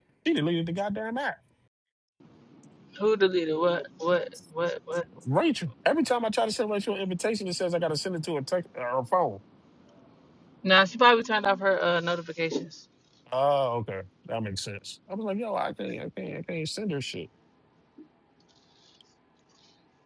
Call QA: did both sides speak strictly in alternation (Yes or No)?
Yes